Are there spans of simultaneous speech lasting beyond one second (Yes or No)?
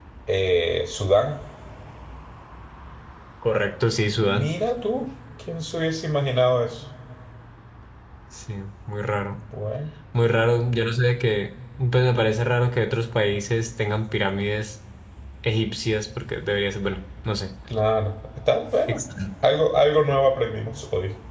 No